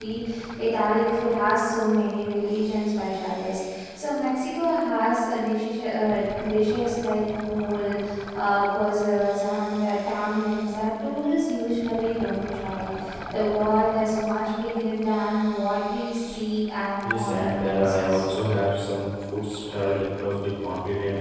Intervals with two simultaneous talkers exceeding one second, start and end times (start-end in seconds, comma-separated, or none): 17.0-18.2